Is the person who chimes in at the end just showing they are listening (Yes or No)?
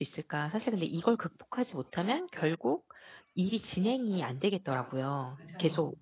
Yes